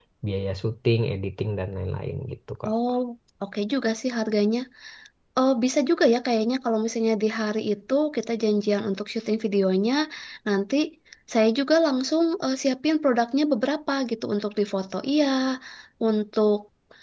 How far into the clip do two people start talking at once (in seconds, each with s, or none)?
none